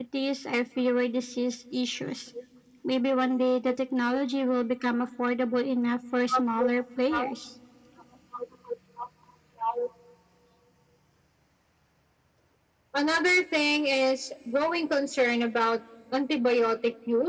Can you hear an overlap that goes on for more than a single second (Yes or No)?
No